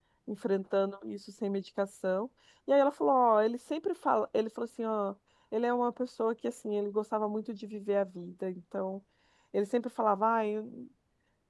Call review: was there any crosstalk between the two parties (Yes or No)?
No